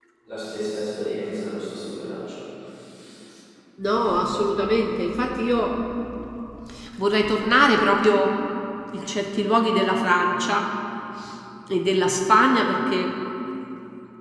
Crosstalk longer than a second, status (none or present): none